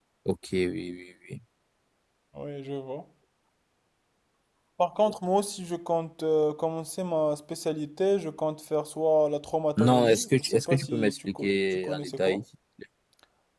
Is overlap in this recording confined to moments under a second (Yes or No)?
No